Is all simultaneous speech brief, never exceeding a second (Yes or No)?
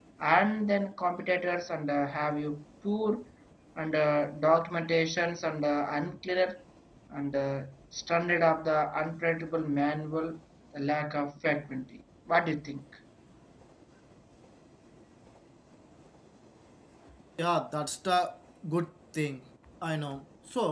Yes